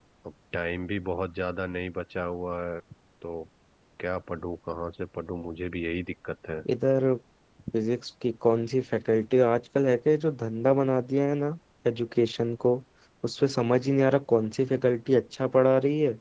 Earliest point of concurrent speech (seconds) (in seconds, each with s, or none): none